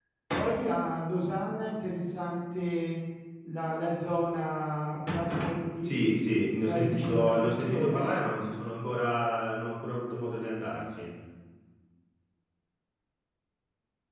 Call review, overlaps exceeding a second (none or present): present